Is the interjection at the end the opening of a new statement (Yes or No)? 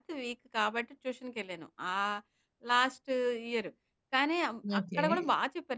No